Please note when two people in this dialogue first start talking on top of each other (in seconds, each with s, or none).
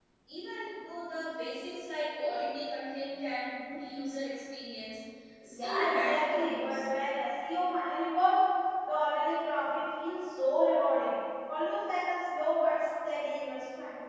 5.5 s